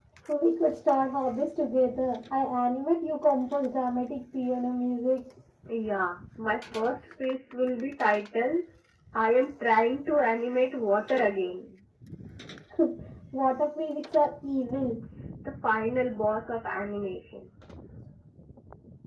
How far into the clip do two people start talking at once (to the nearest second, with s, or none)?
none